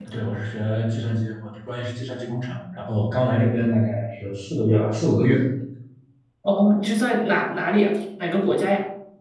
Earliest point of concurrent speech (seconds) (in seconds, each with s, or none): none